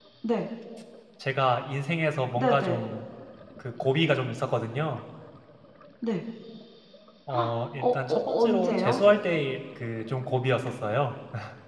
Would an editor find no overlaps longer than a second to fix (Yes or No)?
No